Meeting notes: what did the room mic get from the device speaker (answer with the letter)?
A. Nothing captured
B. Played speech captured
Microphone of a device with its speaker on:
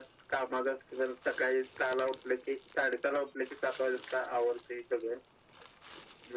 B